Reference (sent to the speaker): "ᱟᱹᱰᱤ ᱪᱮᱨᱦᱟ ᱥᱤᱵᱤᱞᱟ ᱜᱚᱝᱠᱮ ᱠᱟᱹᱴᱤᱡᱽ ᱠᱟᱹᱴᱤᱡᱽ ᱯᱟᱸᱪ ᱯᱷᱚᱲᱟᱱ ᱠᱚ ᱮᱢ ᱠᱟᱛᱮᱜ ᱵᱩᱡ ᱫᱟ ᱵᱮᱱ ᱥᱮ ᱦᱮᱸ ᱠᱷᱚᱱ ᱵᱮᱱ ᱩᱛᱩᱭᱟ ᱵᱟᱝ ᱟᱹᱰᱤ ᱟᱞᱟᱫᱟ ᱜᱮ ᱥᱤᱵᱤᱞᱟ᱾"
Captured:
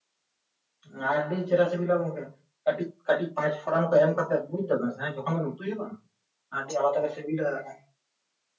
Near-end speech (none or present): none